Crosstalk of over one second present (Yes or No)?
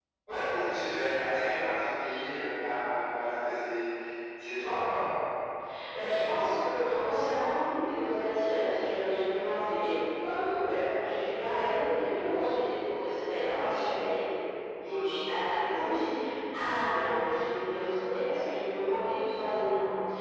No